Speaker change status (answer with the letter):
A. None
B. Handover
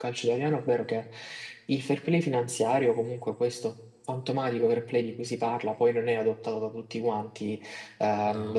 A